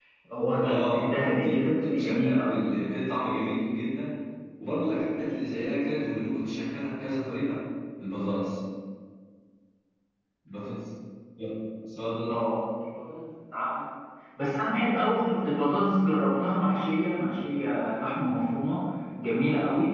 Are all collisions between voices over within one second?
No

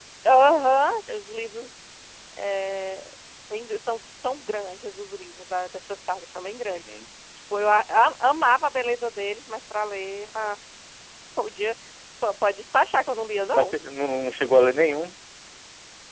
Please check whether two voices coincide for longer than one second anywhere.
No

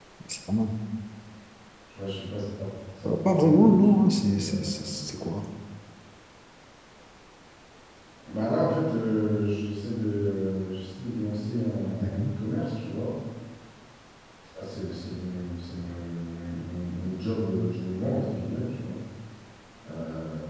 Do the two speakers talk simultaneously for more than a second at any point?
Yes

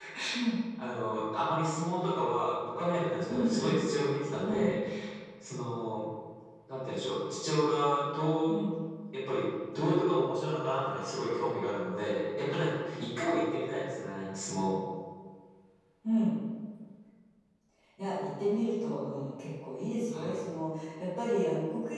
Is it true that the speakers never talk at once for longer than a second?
Yes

